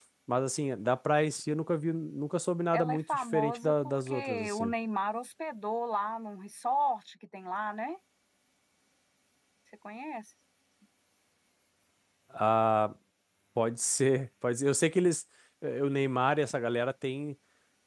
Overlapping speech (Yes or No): Yes